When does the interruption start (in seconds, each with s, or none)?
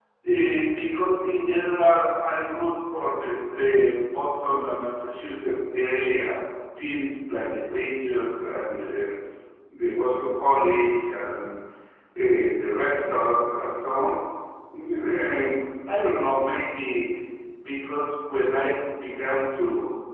none